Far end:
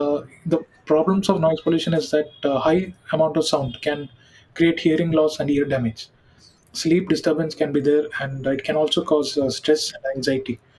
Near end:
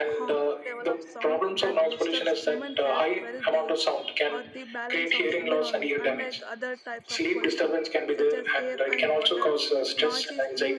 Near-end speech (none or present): present